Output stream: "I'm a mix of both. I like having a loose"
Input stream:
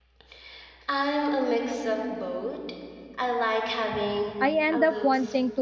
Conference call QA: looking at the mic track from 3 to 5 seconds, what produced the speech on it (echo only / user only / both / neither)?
both